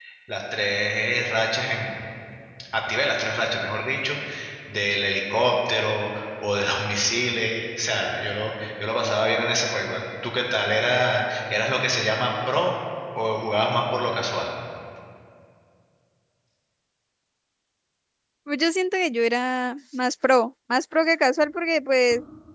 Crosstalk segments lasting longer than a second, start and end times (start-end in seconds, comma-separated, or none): none